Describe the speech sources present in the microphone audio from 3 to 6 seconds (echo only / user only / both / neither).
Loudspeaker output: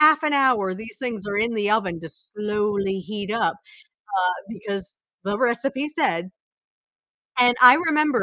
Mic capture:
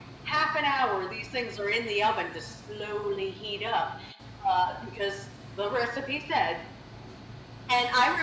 echo only